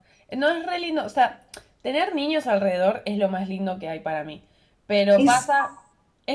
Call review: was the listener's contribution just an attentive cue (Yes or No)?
Yes